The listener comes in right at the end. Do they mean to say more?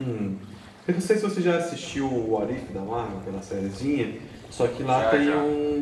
No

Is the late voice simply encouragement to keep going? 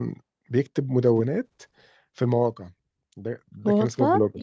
Yes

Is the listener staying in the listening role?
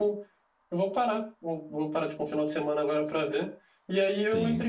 Yes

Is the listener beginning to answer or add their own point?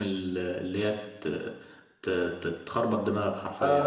Yes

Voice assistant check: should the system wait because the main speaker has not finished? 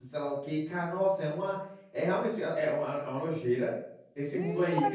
No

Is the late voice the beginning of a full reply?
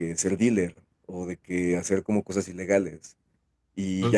No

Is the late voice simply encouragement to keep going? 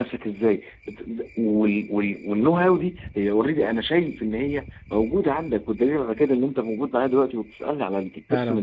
No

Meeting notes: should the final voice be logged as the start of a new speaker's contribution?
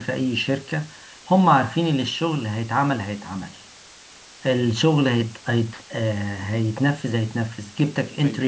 No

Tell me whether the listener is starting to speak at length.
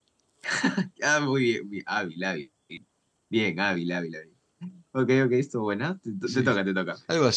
Yes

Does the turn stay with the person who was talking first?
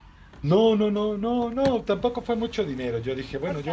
Yes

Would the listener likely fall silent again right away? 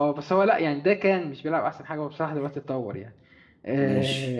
Yes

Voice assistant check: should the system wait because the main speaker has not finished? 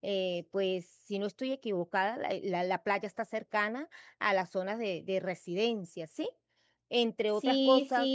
No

